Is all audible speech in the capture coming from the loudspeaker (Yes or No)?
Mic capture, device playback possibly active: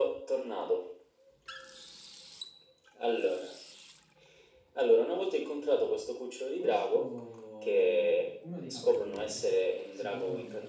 No